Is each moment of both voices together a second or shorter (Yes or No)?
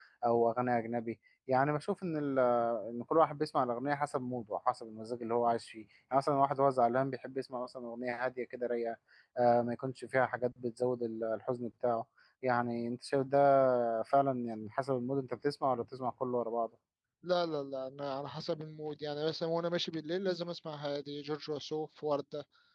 Yes